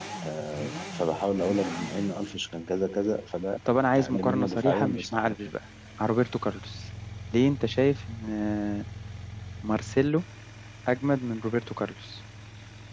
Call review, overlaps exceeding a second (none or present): present